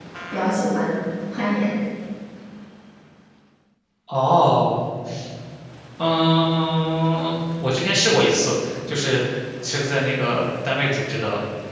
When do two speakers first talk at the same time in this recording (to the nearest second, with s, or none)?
none